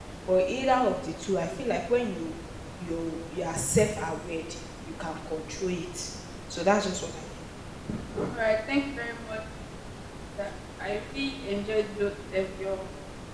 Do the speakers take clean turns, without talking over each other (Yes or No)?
Yes